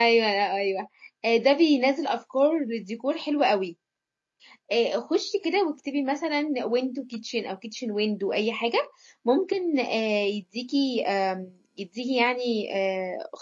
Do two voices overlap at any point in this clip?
No

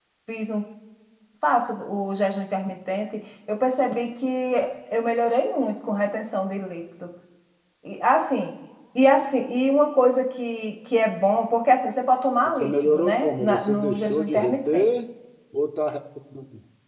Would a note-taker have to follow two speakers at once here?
Yes, from 12.6 s

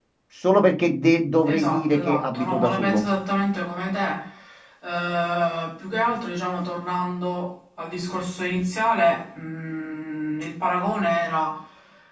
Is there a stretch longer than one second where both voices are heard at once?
Yes, from 1.4 s

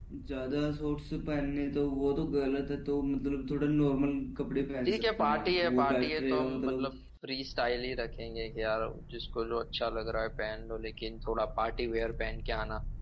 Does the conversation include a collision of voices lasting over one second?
Yes, from 4.8 s

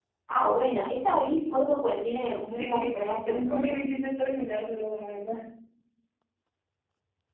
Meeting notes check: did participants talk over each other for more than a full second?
Yes, from 2.5 s

